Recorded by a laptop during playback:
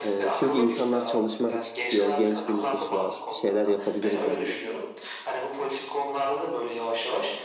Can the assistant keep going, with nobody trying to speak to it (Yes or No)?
No